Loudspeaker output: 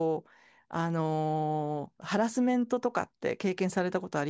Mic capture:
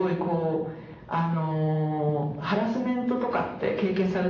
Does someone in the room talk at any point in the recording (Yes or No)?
No